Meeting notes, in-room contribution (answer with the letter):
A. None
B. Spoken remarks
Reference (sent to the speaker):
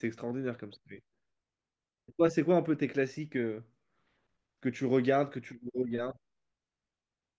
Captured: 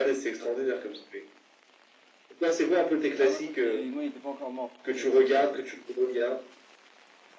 B